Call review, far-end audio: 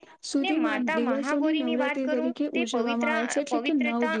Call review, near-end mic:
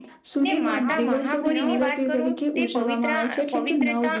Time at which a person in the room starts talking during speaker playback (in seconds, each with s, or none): 0.5 s